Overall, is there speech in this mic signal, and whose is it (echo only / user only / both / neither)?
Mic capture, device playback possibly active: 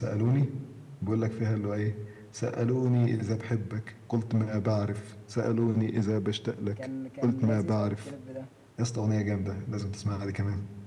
both